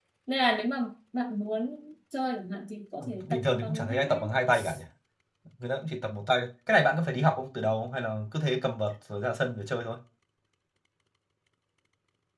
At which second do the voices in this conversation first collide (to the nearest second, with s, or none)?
3 s